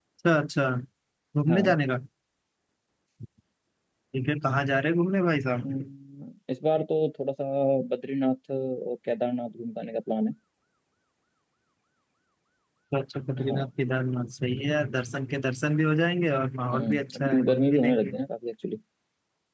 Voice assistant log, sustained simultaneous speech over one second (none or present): present